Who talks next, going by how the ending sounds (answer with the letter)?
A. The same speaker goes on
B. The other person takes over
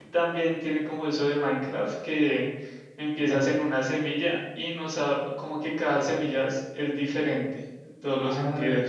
B